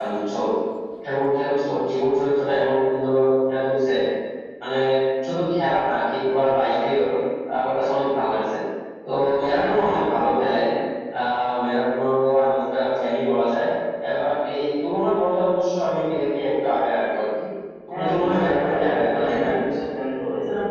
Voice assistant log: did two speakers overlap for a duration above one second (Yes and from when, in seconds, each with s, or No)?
Yes, from 17.9 s